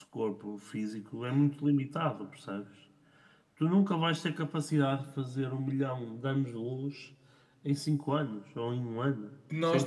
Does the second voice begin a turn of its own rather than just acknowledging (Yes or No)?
Yes